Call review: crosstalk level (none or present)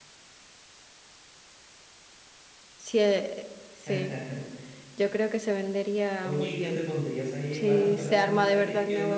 present